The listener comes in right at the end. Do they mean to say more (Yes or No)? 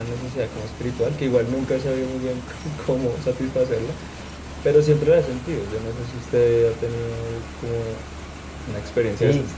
Yes